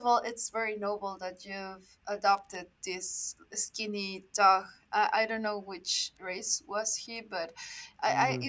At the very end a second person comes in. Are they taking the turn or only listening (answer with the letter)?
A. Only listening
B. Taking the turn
A